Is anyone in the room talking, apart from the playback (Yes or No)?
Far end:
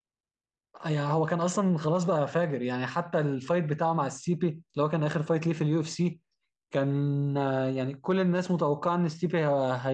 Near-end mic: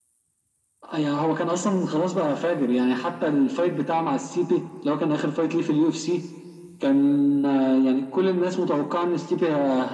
No